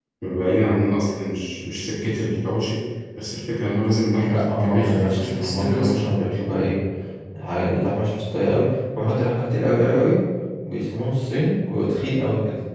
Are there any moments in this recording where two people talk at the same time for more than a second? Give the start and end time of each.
4.2-6.0

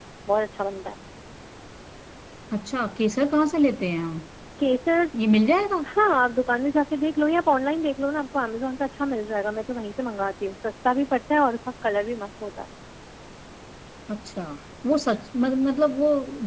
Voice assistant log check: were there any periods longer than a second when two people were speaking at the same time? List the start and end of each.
none

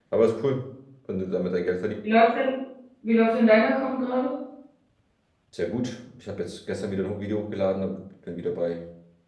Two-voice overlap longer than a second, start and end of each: none

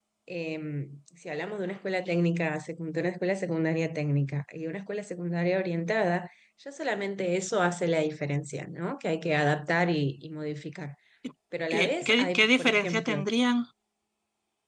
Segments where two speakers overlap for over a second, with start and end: 11.7-13.2

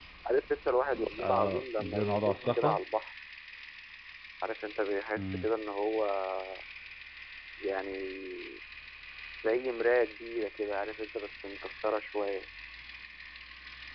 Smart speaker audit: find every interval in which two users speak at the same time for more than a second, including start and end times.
1.2-2.8

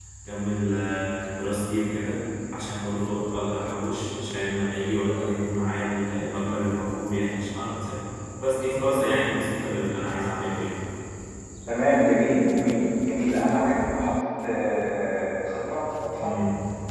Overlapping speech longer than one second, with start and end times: none

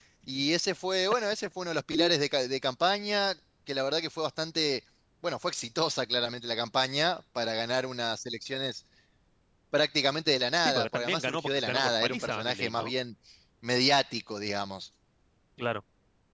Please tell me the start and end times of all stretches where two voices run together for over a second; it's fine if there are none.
10.6-12.9

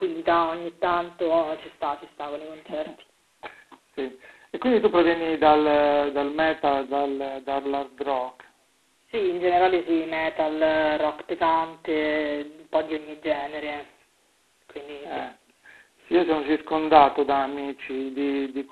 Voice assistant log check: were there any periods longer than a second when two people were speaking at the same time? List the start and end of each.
none

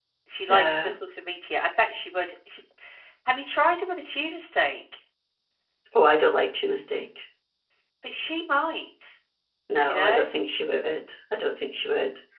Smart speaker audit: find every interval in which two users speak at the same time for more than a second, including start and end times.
none

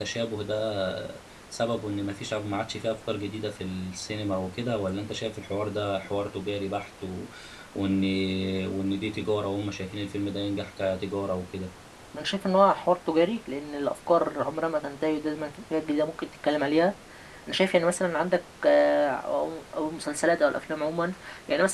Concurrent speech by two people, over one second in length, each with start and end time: none

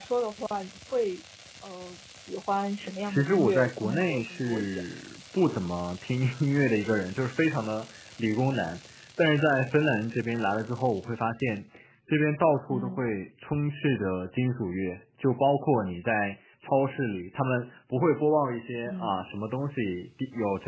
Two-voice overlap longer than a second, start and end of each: 3.0-4.8

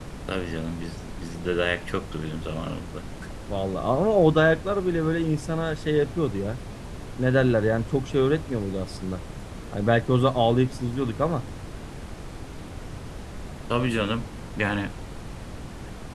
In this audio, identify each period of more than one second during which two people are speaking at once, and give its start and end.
none

